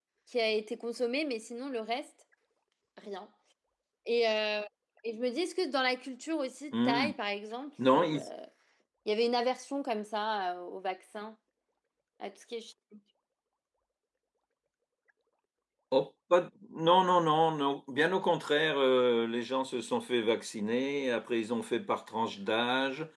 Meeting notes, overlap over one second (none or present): none